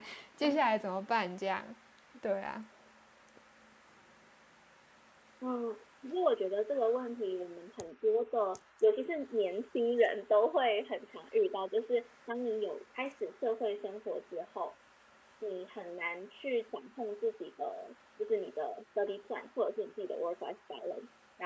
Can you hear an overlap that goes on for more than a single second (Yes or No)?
No